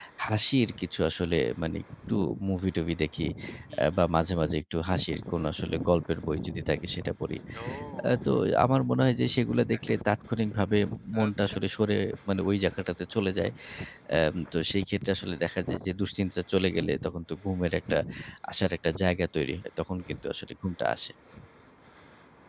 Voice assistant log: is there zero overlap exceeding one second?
Yes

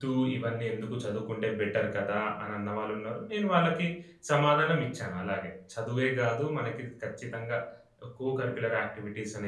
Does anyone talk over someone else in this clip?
No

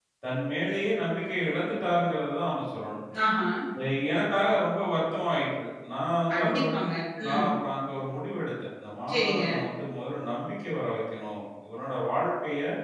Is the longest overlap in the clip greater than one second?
No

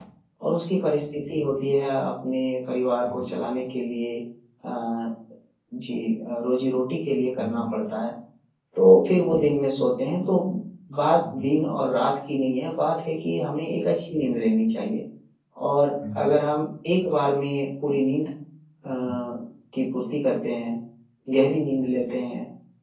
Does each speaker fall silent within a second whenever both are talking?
Yes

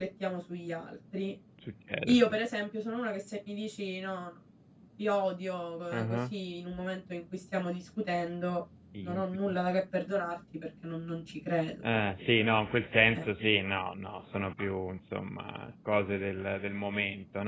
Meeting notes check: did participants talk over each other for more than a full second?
No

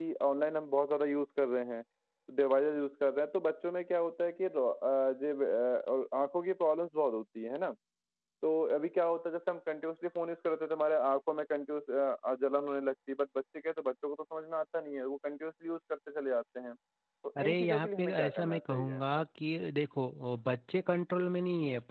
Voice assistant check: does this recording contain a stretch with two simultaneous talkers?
Yes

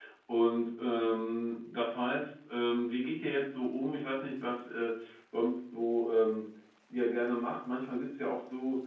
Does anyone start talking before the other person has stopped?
No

